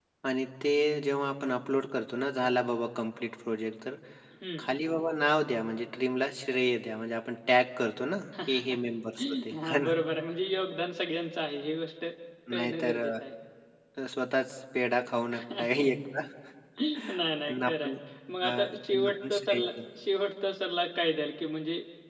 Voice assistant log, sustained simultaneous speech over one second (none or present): present